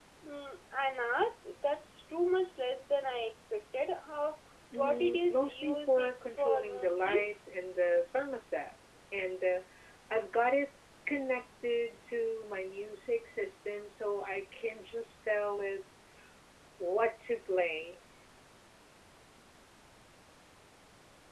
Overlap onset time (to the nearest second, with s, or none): 5 s